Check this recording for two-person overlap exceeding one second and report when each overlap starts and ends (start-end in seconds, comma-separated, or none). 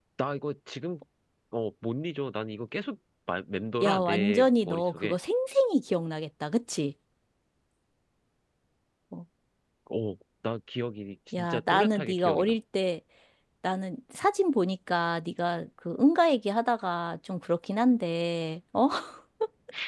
3.8-5.2, 11.3-12.6